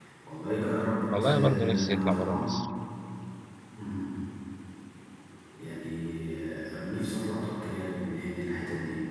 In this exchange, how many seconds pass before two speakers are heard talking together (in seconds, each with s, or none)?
1.2 s